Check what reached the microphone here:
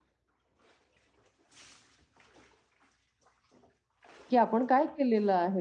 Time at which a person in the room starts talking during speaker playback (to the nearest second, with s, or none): 4 s